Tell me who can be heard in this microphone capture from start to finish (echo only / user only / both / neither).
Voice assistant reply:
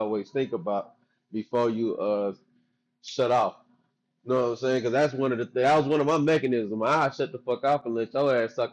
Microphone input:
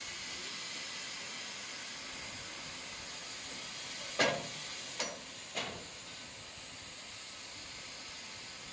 neither